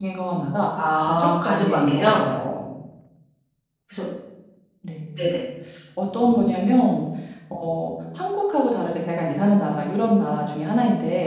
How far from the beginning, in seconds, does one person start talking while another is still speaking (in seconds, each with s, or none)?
1.0 s